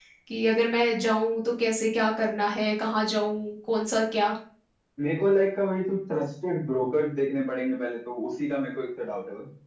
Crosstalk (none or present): none